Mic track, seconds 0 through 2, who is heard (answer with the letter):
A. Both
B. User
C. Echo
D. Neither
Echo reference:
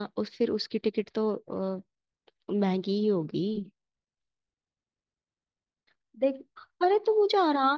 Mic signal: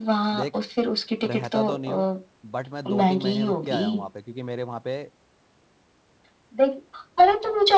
A